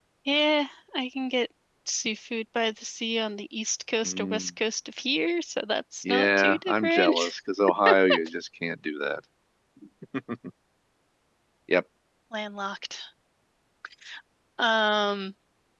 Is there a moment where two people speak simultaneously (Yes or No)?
Yes